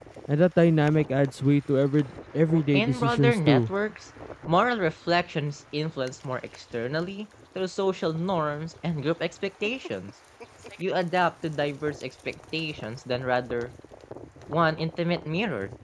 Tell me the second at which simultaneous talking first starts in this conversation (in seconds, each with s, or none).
2.5 s